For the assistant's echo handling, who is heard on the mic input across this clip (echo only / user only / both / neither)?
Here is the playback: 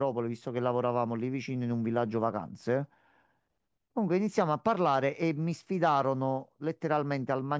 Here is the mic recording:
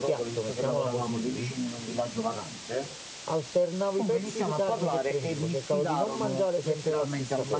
both